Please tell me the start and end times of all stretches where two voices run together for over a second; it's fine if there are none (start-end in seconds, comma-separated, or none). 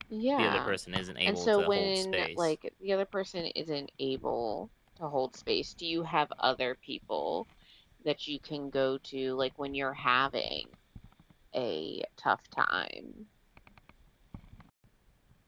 1.2-2.5